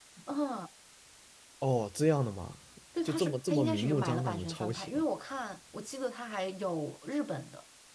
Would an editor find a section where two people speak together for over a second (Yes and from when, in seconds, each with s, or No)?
Yes, from 3.0 s